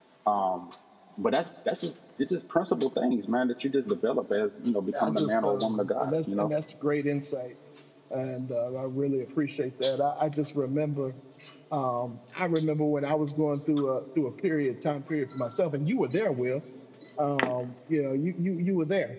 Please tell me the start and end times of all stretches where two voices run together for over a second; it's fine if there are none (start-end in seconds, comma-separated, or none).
5.0-6.5